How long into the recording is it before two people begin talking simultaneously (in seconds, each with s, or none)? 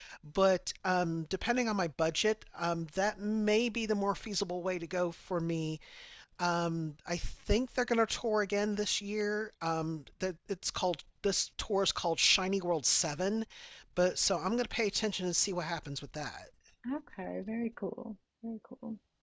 none